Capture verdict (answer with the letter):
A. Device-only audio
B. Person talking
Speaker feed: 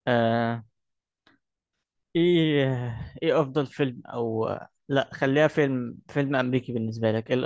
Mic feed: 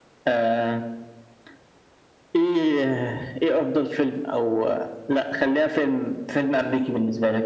A